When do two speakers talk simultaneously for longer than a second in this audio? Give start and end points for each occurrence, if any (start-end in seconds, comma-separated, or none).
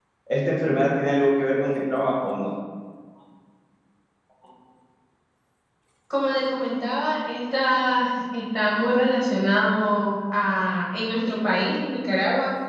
none